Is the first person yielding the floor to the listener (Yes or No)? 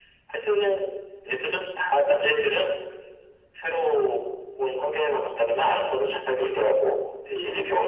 No